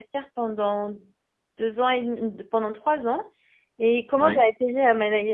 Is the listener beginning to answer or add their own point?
No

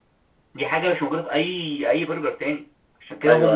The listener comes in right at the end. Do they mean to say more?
Yes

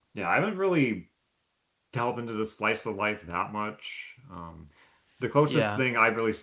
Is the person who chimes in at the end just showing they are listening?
Yes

